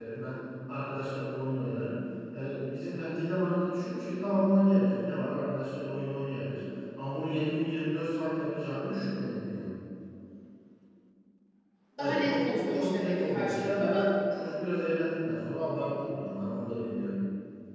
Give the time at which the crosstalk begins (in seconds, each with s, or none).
12.0 s